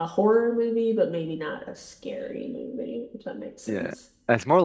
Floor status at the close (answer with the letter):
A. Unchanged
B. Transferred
B